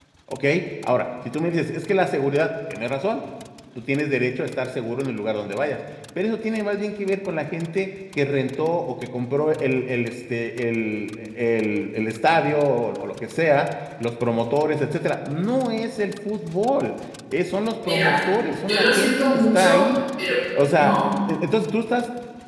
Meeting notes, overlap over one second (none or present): present